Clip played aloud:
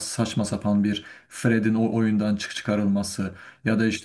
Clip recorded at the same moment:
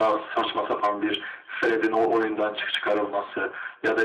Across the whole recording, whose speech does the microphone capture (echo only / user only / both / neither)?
echo only